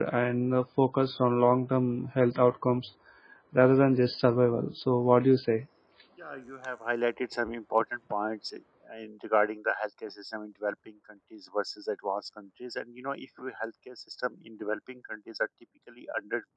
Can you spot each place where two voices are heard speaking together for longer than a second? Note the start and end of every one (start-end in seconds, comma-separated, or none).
none